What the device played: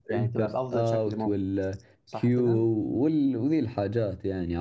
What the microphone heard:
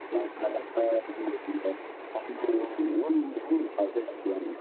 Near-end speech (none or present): none